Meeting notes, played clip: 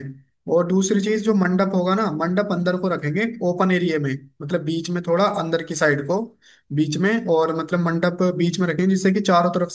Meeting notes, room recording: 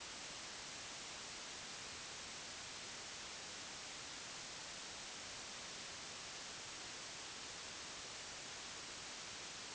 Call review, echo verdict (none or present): none